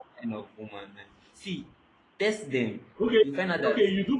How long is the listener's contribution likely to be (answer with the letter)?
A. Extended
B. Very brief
A